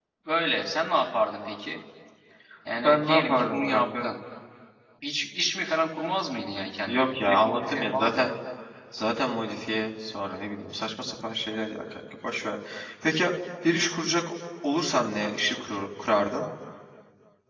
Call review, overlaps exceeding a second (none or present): present